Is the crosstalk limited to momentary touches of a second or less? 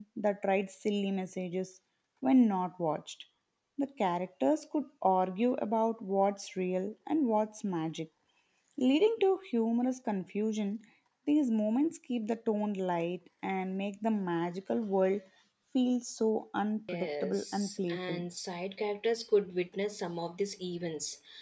No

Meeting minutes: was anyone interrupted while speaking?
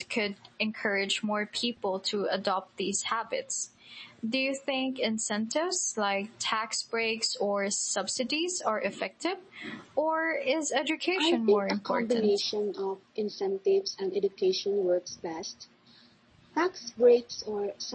Yes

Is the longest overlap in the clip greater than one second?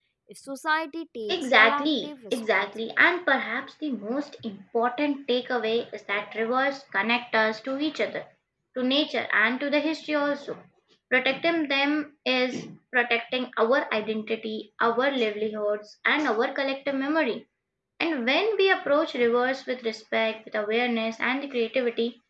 Yes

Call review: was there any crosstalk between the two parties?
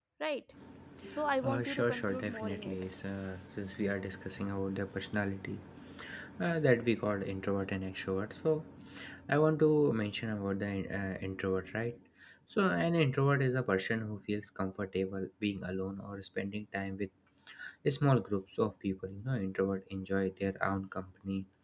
Yes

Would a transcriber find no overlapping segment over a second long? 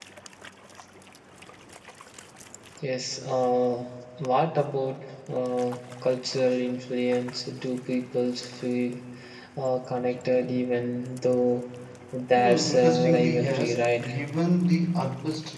No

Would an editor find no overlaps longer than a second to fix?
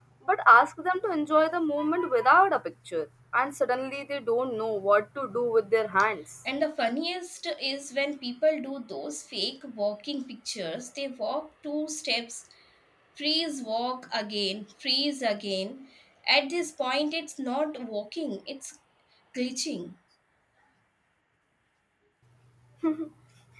Yes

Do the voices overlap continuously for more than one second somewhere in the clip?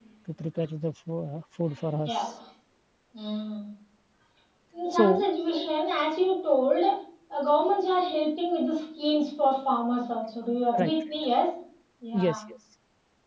No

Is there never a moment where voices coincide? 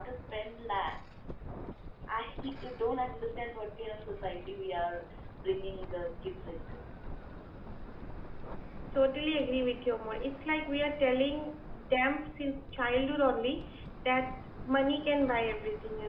Yes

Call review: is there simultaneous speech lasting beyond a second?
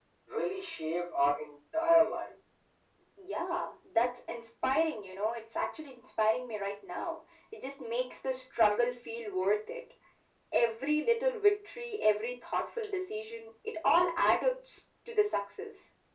No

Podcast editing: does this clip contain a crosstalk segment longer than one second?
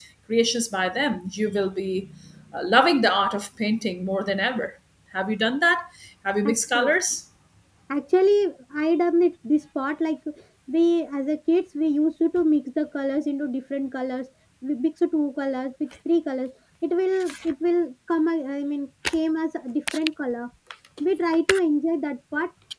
No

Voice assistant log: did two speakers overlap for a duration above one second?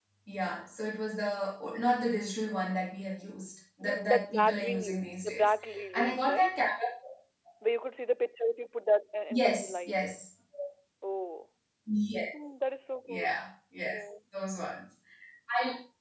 Yes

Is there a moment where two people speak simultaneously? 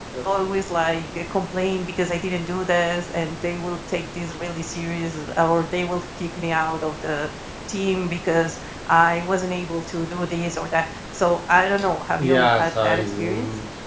Yes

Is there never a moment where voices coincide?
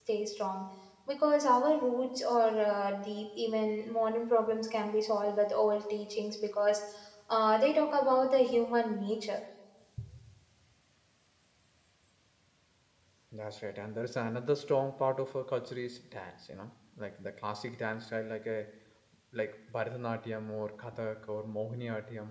Yes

